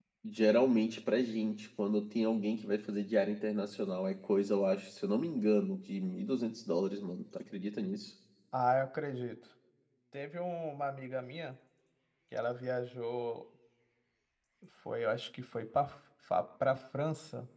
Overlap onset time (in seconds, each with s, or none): none